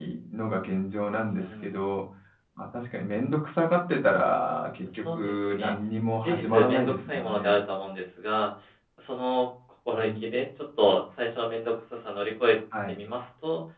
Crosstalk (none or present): present